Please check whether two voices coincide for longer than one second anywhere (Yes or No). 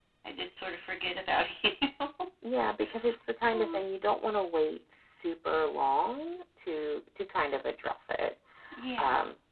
No